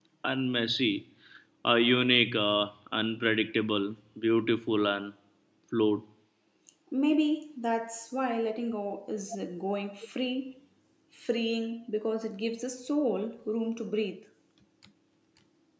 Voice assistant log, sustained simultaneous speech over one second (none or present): none